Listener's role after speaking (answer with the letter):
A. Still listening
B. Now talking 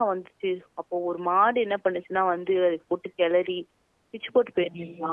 A